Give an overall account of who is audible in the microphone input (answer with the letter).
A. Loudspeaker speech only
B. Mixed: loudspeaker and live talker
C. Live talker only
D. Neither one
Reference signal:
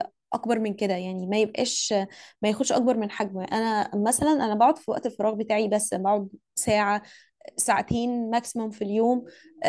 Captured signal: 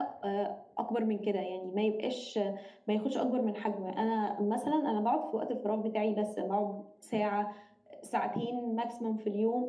A